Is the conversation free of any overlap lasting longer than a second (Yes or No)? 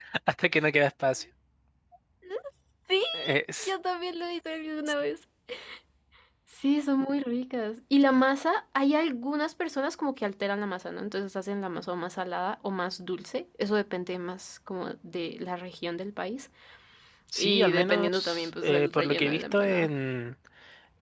No